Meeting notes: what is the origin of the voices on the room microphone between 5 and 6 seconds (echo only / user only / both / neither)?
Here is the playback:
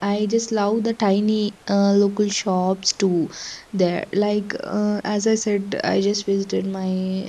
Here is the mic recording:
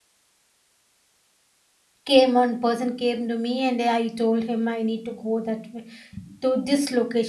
user only